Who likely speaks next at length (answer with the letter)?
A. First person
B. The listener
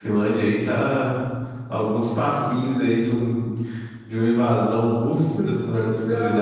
B